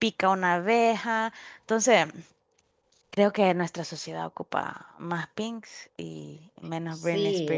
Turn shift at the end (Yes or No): Yes